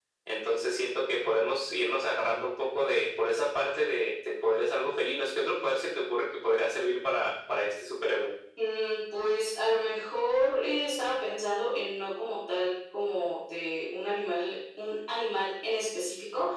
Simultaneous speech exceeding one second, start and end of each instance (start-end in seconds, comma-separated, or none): none